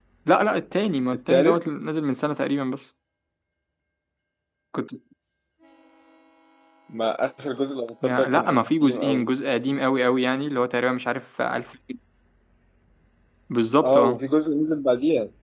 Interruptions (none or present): present